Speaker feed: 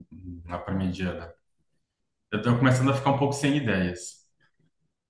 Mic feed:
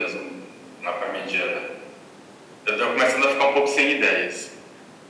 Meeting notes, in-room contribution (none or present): none